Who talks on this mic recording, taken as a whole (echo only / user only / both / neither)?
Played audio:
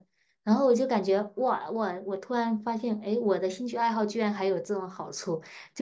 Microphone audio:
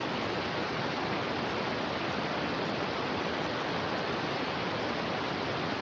neither